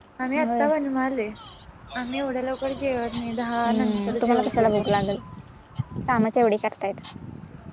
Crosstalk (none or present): present